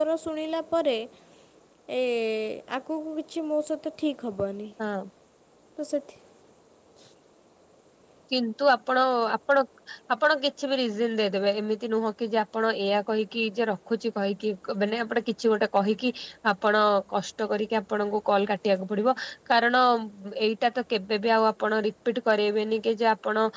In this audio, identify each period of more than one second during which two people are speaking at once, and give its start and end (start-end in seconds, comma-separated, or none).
none